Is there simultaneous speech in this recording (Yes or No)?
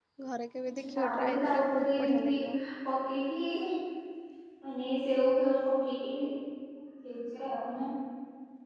Yes